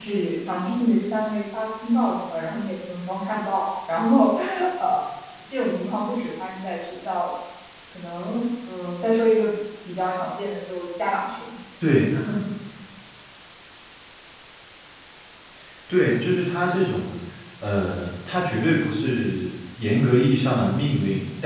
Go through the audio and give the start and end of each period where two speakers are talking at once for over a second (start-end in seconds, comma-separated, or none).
none